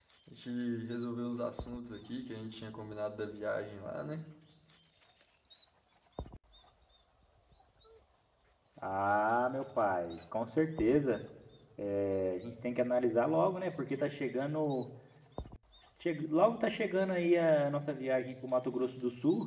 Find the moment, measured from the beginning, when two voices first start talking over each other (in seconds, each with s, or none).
none